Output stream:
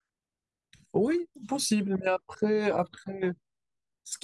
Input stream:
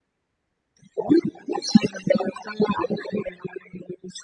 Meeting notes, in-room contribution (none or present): none